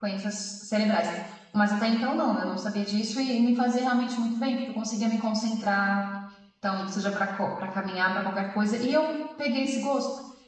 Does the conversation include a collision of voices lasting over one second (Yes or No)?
No